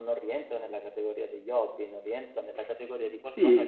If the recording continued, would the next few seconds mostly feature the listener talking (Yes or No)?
Yes